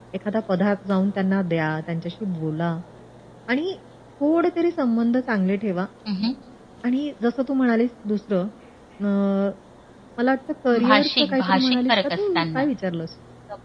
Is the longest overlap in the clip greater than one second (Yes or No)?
Yes